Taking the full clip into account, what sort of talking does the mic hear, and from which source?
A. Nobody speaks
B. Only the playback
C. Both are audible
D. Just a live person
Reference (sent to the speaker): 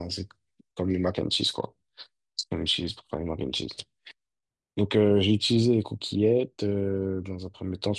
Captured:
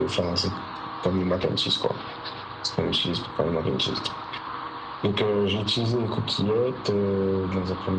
B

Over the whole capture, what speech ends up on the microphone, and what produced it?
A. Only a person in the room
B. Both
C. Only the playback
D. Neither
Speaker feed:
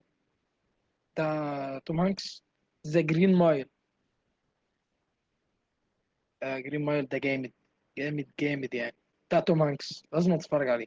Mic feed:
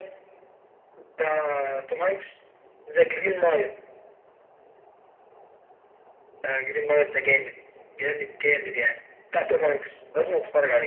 C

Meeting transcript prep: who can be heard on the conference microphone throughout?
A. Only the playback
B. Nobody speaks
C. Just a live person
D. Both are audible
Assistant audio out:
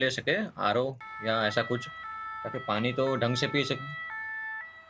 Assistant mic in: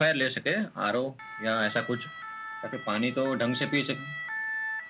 A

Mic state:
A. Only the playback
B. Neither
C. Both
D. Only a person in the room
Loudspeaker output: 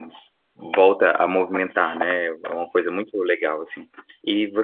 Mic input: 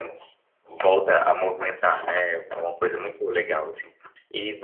A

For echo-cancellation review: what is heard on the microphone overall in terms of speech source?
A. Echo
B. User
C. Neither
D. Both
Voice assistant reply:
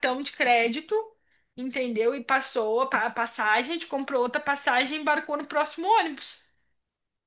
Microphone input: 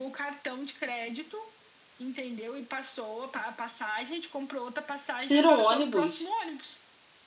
D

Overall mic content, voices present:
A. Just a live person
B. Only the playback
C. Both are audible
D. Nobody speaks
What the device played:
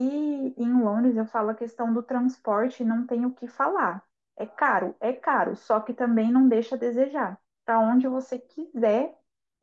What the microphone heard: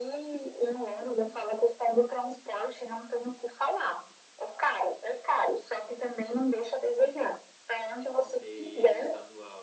C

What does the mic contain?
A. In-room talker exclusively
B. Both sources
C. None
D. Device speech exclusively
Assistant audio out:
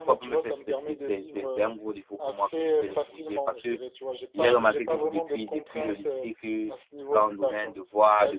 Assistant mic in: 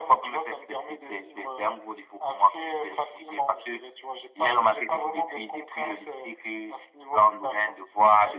D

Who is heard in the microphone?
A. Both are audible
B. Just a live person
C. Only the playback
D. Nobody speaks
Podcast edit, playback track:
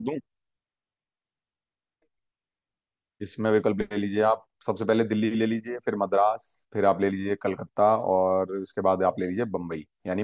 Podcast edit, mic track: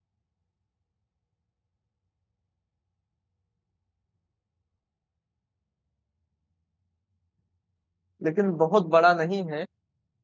B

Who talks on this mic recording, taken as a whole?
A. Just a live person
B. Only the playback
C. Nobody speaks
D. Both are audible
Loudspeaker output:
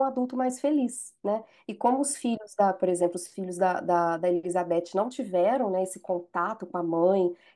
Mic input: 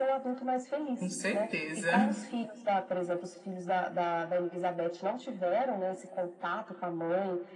D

